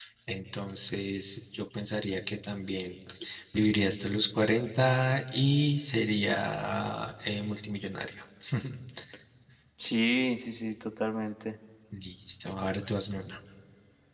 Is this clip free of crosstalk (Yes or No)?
Yes